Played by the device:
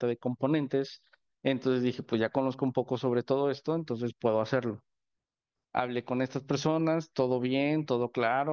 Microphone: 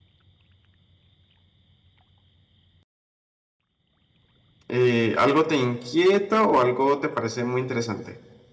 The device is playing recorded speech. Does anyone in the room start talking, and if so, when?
4.7 s

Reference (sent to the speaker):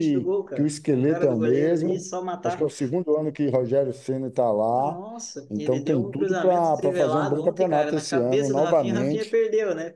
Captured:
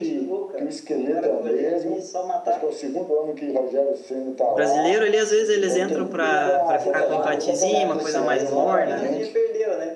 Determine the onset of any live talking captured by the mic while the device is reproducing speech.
4.5 s

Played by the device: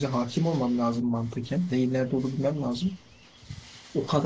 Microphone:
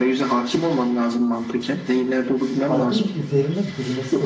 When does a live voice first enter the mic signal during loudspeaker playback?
2.4 s

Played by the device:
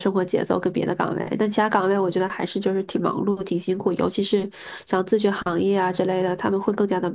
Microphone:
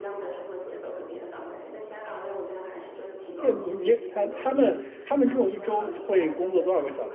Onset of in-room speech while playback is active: 3.4 s

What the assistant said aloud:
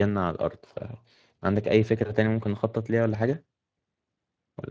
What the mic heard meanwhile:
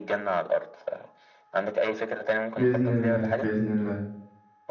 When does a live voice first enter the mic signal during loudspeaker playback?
2.6 s

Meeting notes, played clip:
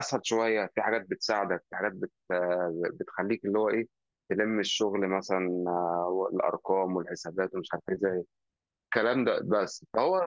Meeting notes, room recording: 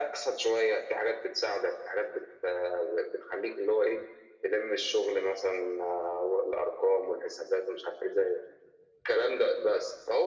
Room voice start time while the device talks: none

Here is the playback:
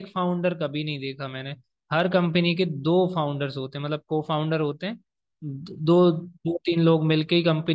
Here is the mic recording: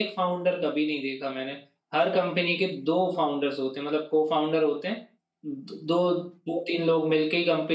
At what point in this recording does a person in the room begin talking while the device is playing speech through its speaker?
none

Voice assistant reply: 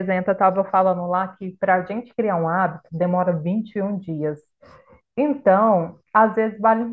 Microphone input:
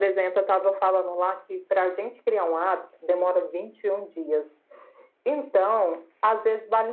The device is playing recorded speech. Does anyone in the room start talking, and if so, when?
none

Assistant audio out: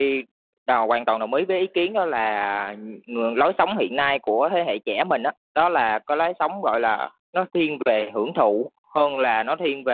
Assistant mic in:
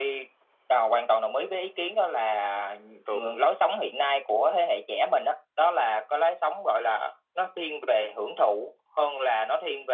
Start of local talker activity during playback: 3.0 s

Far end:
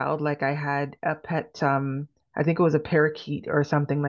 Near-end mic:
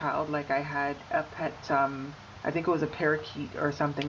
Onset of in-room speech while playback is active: none

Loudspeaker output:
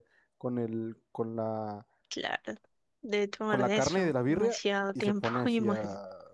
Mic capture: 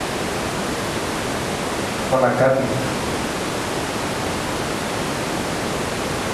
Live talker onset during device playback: 2.1 s

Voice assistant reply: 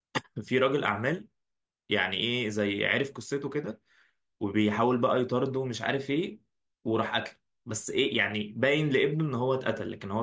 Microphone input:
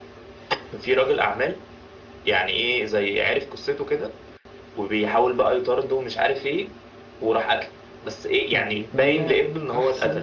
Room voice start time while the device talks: 8.5 s

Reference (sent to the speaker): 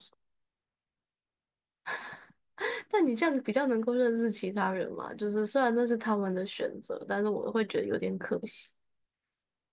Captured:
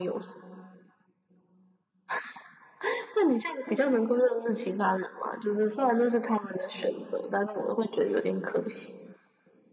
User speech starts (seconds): none

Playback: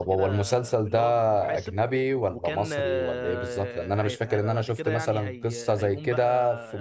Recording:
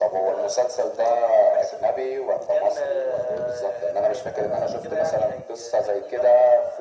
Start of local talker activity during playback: none

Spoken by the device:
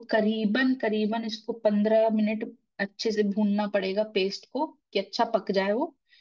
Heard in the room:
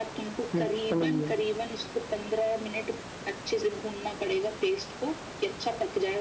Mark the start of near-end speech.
0.3 s

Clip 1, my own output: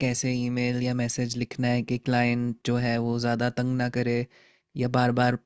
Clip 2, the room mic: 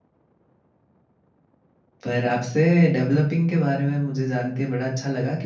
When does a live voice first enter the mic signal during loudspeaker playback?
2.0 s

